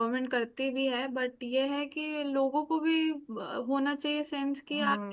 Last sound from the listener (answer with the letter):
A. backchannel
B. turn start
B